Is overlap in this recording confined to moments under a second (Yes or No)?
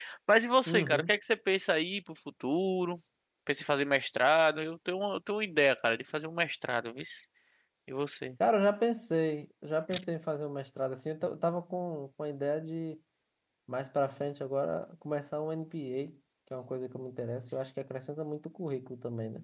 Yes